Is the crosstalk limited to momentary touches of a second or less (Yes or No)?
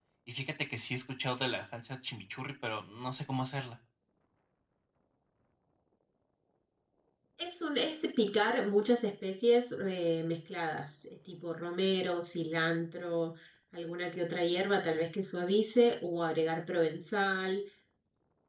Yes